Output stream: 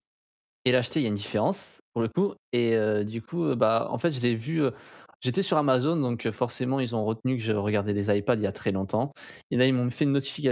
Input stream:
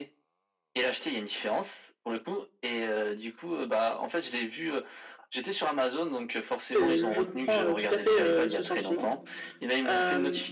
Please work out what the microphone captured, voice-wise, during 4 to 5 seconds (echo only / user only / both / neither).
echo only